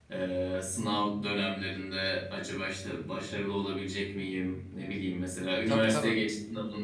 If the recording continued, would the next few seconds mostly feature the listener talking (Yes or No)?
No